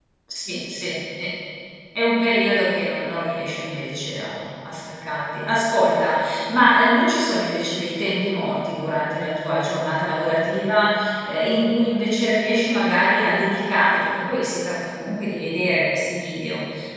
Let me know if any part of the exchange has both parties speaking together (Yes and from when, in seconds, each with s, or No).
No